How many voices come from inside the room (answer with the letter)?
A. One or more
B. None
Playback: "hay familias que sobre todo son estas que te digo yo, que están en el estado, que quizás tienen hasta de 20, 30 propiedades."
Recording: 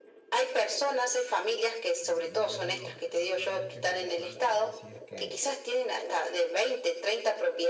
A